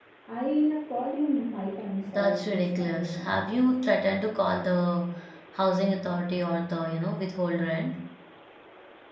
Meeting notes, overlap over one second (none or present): present